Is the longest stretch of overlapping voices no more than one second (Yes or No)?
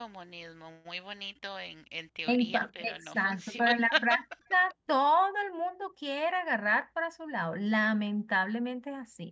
No